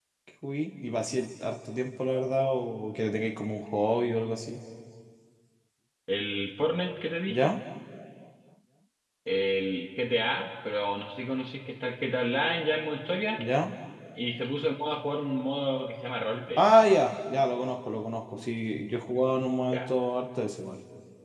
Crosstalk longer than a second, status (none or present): none